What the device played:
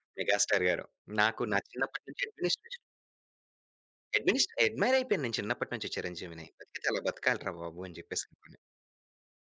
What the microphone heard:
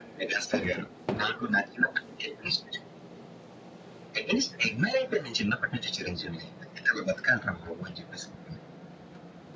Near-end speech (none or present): none